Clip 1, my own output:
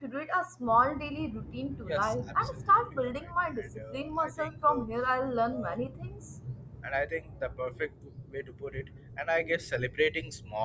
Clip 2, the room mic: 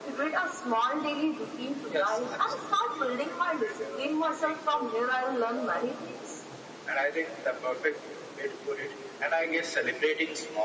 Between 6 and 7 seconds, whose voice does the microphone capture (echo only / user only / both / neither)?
echo only